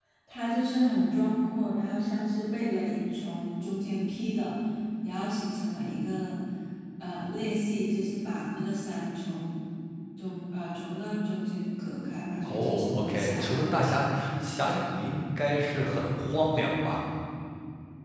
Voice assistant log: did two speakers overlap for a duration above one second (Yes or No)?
Yes